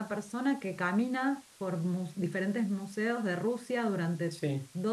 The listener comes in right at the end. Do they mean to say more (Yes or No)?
No